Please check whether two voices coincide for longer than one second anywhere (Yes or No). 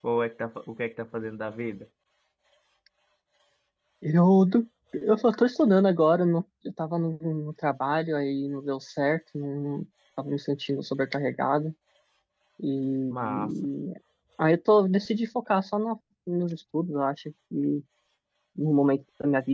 No